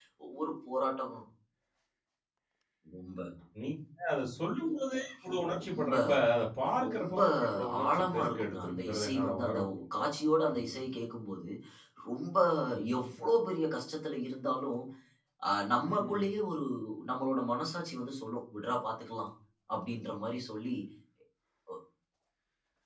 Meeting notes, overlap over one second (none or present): present